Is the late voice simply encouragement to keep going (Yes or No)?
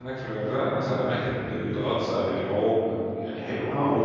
No